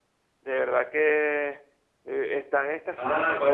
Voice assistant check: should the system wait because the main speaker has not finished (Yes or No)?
No